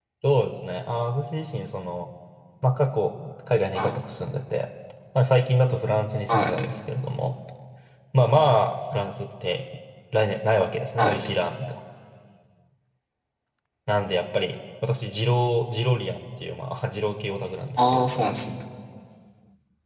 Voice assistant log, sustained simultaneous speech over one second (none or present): none